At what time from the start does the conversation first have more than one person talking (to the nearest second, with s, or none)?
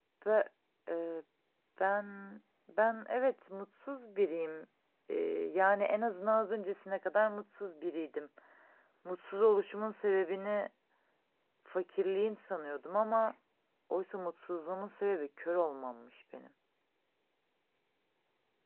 none